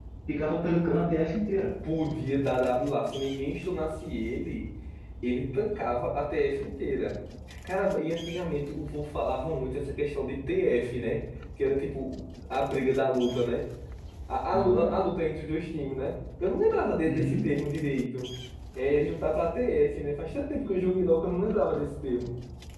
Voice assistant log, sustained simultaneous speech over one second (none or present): none